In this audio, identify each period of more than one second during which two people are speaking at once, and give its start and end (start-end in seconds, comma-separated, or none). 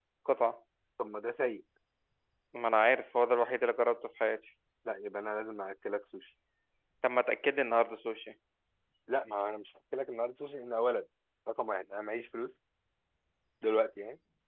none